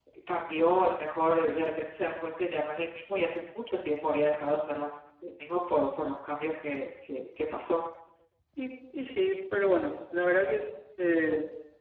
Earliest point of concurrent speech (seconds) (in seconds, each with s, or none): none